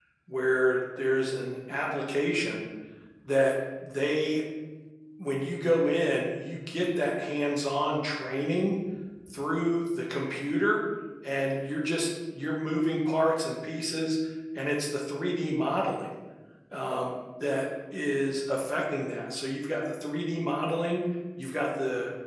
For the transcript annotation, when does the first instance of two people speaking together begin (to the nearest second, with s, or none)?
none